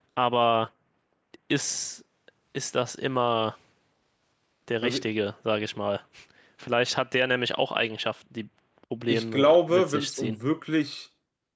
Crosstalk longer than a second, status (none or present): present